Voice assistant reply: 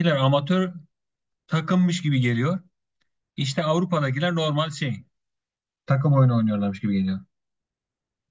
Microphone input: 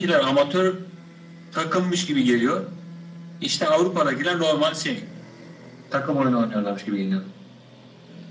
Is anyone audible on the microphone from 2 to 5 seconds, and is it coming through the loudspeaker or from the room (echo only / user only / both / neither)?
echo only